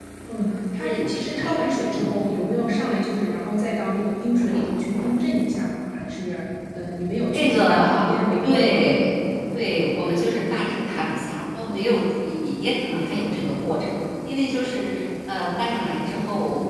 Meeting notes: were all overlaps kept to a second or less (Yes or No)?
No